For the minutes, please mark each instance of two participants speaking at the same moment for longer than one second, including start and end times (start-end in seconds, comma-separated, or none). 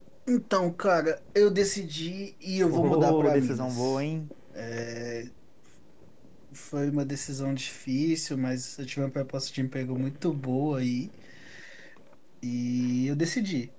2.7-4.0